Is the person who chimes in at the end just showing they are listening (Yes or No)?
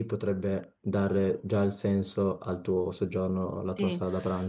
No